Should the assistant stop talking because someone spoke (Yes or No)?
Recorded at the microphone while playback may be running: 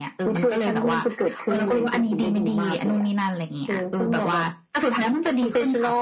No